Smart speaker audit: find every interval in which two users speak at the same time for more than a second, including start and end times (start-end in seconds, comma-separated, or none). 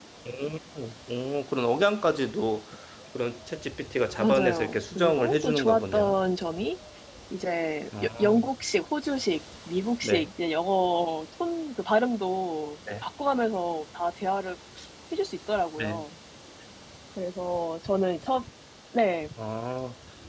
4.2-6.1